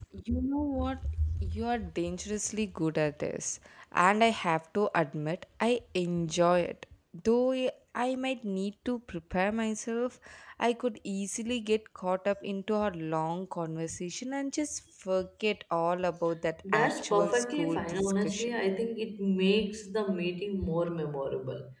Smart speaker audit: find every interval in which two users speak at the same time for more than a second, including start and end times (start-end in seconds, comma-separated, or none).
16.7-18.6